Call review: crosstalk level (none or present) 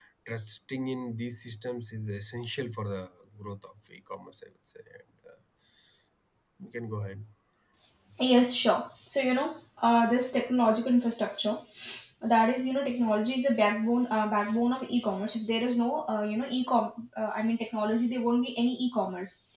none